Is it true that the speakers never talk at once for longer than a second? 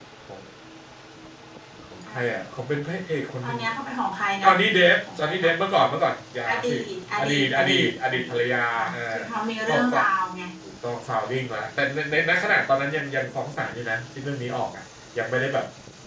No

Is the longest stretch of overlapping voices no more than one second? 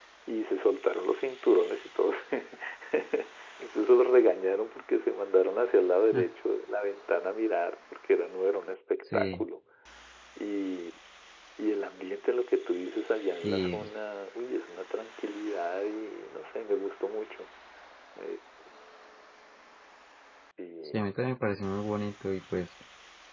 Yes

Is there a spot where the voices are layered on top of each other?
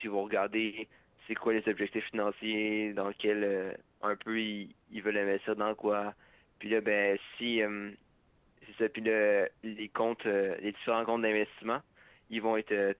No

